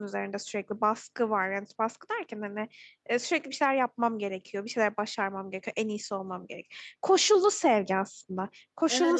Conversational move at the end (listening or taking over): taking over